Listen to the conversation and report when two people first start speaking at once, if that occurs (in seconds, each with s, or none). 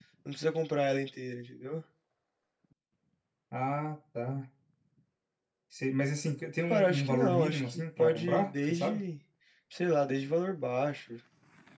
6.7 s